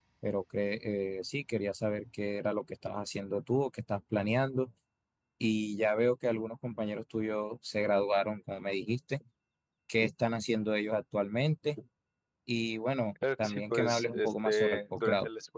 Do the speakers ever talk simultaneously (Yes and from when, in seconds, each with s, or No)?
Yes, from 13.2 s